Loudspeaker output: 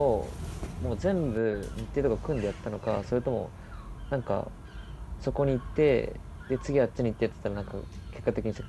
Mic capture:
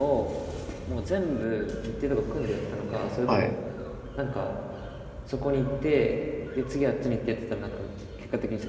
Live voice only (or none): は。はい。